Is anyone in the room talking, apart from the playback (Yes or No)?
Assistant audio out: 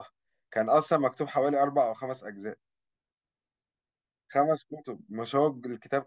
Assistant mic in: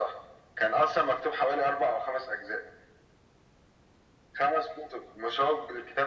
No